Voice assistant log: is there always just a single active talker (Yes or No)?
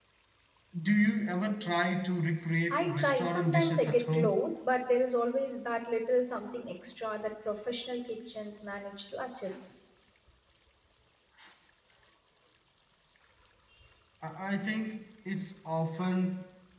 No